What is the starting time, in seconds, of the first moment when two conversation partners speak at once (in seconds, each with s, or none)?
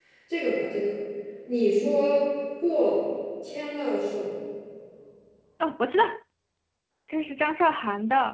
none